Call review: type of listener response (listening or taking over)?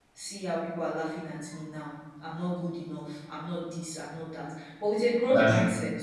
listening